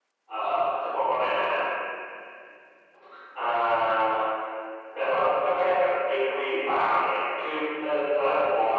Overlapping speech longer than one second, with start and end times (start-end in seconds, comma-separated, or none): none